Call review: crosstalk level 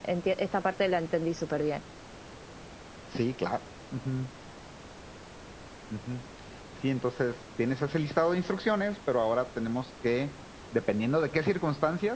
none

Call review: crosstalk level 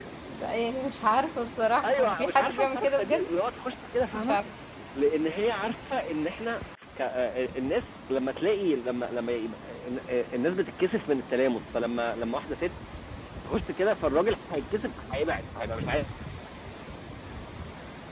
present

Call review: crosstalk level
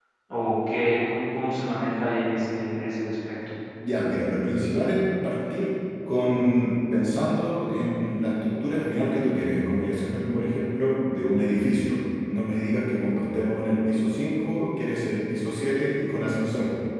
none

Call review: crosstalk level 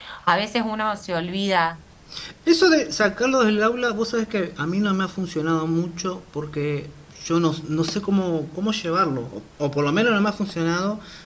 none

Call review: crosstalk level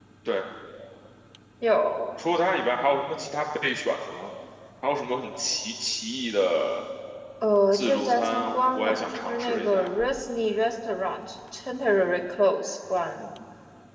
present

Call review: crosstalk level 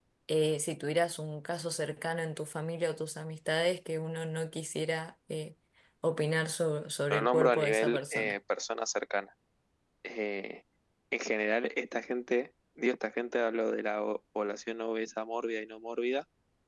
present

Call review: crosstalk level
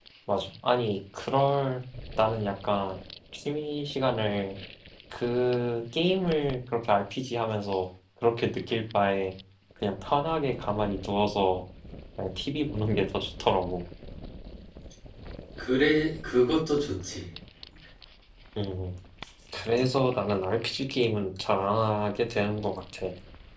none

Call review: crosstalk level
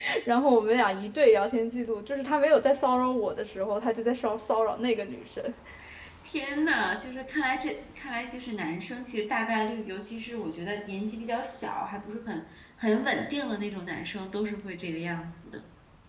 none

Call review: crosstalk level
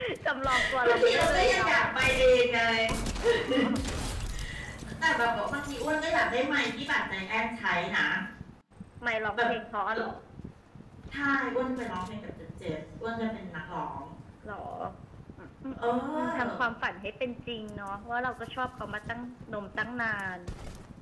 present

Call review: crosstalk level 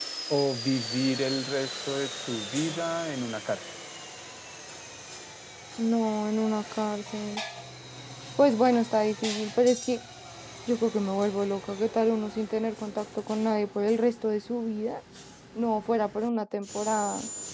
none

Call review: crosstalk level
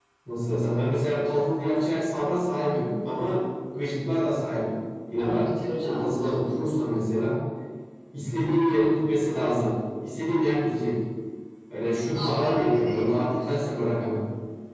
present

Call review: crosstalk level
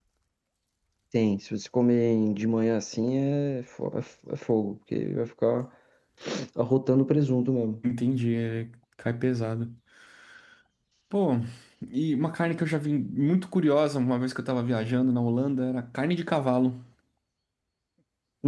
none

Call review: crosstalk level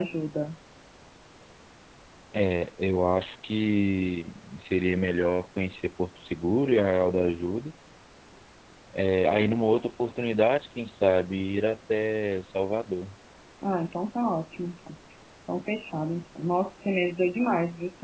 none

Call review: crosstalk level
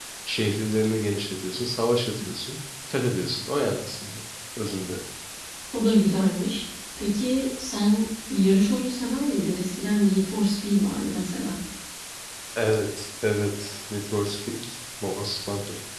none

